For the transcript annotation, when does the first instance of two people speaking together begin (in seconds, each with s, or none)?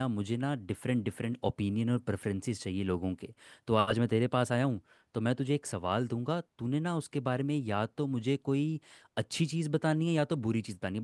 none